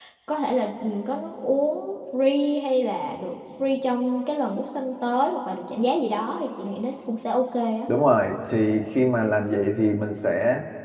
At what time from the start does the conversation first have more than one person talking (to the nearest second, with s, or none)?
none